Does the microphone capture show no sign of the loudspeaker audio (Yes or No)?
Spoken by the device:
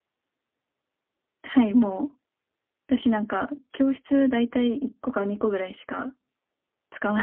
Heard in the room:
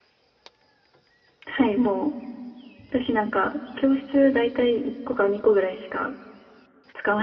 No